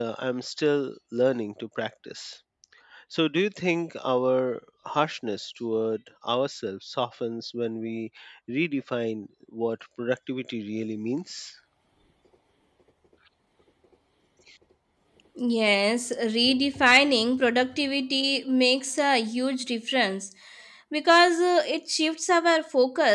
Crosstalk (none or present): none